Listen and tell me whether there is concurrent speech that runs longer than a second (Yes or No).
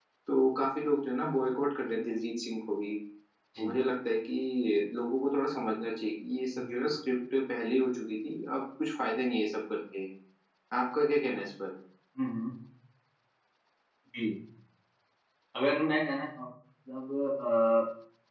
No